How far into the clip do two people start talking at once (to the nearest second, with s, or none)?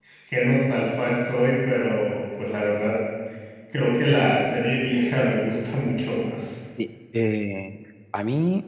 none